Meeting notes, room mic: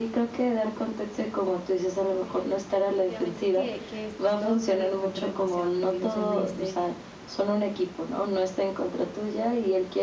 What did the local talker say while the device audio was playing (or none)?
Oye, no, definitivamente que que esto es todo, pero lo encuentro demasiado útil. O sea, me diste